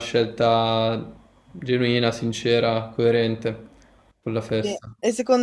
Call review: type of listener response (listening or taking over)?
taking over